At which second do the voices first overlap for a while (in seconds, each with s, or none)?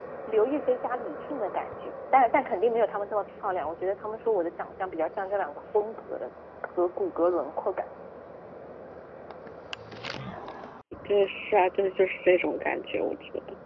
none